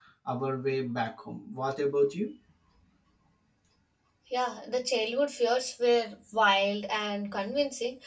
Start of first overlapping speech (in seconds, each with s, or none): none